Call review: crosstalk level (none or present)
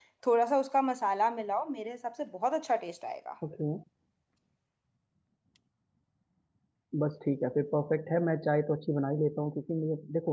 none